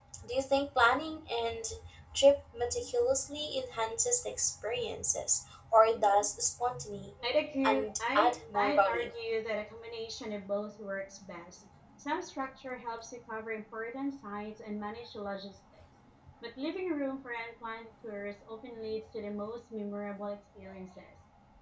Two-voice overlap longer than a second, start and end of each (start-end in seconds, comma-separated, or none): 7.7-9.1